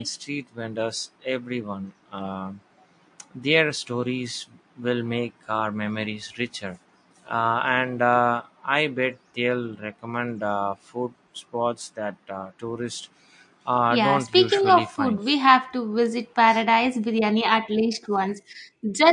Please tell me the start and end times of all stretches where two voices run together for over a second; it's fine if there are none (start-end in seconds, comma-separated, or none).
13.9-15.2